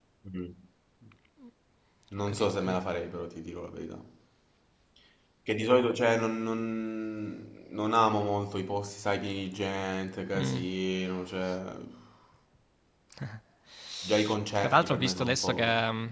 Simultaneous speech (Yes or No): Yes